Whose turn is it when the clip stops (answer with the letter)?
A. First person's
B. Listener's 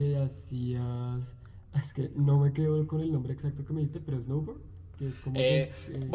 B